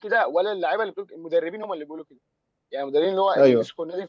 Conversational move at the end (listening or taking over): listening